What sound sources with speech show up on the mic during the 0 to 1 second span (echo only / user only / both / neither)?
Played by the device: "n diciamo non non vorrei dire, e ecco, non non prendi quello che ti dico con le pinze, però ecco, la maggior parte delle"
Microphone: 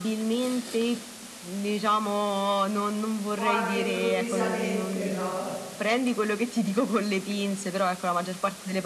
echo only